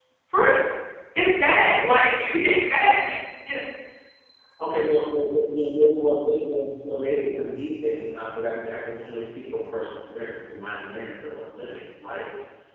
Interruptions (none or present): none